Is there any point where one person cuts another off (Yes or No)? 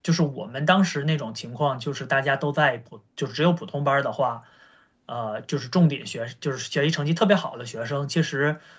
No